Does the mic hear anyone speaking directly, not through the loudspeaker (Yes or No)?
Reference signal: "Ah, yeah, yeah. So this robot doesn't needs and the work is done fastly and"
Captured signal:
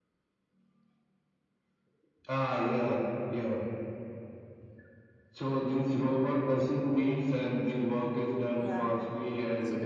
Yes